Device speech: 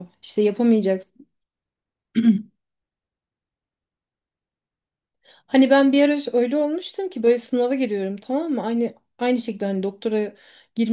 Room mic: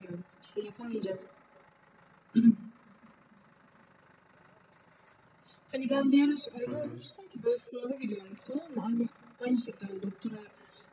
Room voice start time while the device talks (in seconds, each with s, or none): 6.6 s